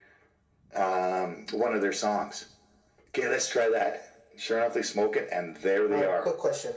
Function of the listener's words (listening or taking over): taking over